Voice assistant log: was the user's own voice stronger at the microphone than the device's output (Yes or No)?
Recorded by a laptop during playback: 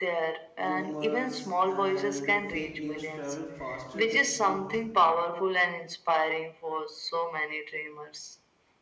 No